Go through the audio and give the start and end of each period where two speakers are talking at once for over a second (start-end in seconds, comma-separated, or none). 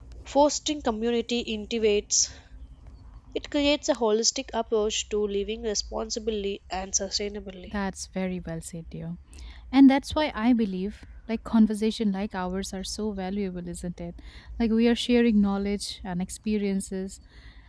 none